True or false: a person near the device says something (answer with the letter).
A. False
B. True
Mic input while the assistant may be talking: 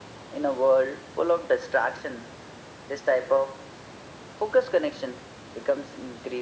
A